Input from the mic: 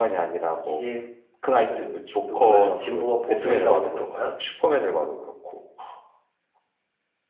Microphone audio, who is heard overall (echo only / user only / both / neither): both